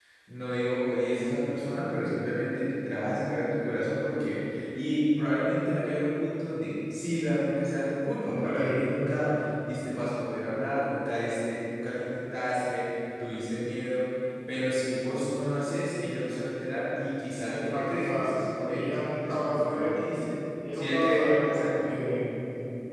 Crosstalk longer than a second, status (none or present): present